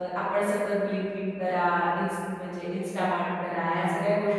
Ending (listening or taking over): listening